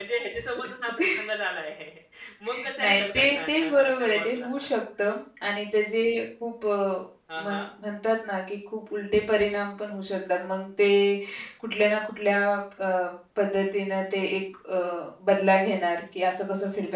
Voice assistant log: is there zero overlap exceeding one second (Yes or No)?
No